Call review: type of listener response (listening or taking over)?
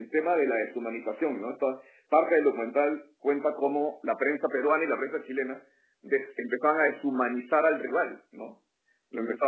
listening